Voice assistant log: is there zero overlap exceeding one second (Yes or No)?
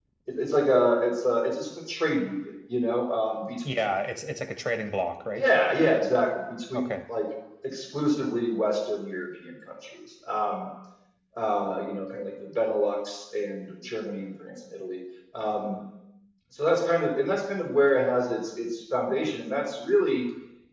Yes